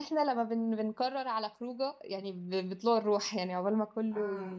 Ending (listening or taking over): listening